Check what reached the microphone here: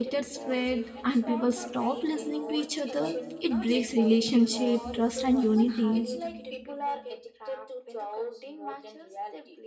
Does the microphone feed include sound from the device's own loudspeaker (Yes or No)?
Yes